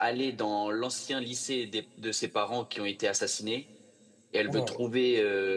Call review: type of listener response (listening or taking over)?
listening